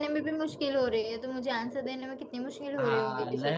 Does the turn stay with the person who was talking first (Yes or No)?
No